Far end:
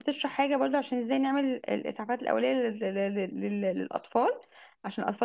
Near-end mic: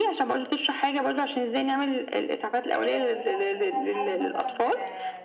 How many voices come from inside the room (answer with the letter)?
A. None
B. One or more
B